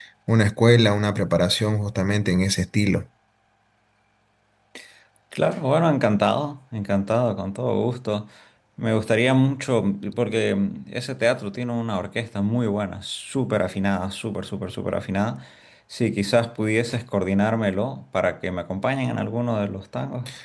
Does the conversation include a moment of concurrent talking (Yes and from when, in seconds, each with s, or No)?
No